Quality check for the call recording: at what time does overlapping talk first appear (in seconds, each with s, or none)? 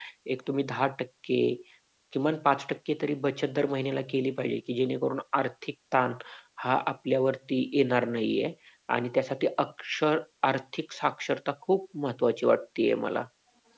none